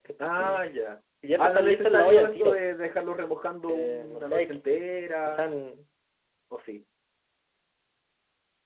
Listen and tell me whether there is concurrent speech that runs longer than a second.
Yes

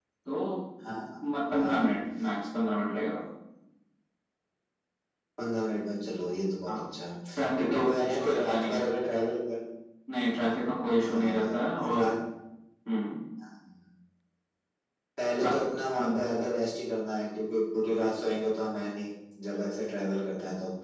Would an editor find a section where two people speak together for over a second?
Yes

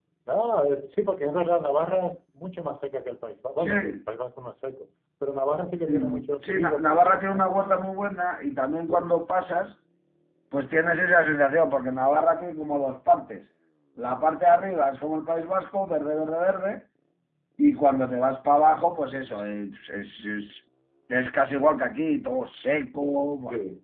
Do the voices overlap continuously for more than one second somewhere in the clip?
Yes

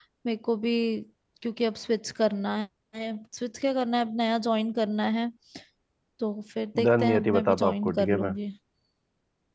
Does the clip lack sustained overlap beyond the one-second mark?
No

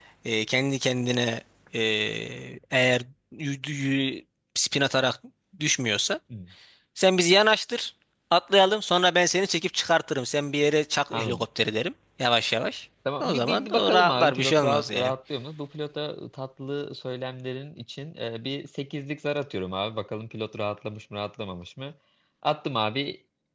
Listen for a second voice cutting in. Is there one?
Yes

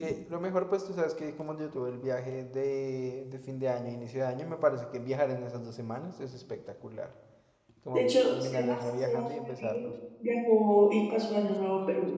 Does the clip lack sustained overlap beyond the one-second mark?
No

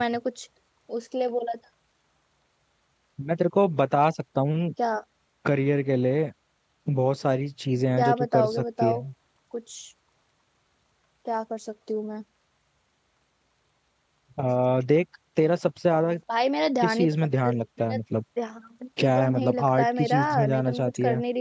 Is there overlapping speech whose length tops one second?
Yes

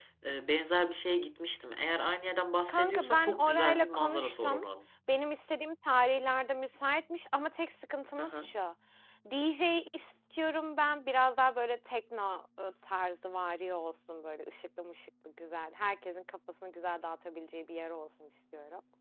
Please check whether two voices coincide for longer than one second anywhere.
Yes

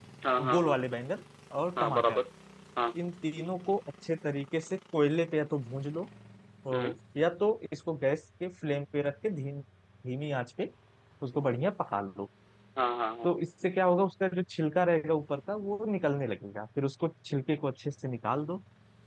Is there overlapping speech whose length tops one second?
No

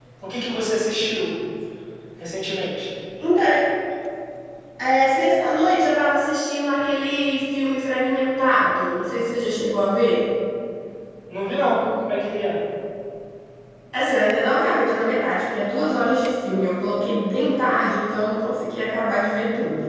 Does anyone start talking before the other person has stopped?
No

